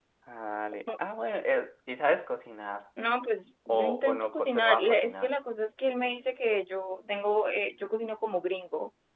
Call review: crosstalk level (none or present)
present